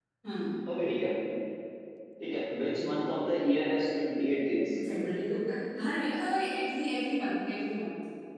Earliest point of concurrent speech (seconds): none

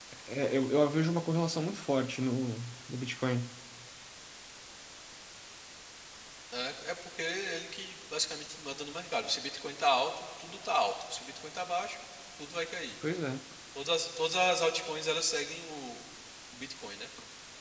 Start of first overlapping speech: none

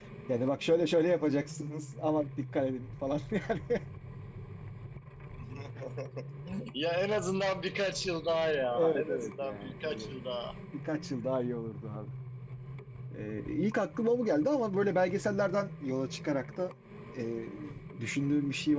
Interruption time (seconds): 9 s

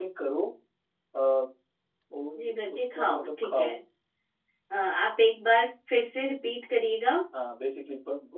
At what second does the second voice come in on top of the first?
2 s

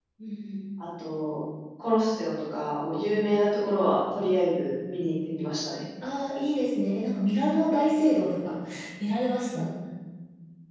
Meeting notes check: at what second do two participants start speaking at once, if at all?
none

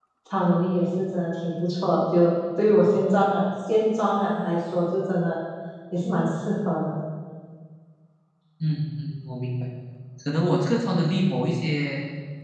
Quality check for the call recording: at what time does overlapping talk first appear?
none

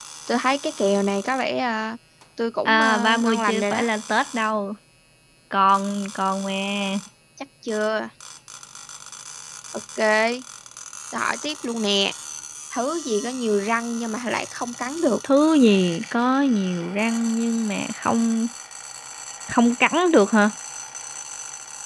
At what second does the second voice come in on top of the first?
3 s

